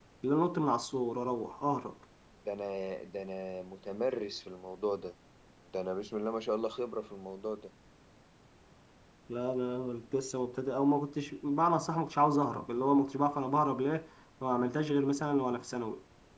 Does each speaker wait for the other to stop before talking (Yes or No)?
Yes